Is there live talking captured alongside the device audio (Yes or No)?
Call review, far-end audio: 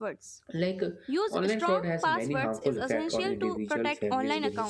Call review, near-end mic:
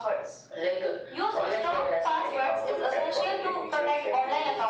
No